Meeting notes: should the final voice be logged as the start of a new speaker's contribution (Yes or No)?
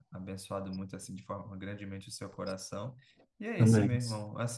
No